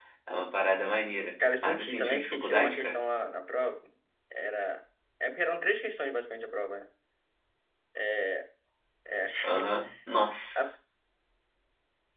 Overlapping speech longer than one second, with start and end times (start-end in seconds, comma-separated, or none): 1.6-3.0